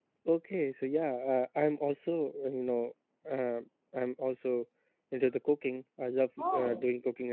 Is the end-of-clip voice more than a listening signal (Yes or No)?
No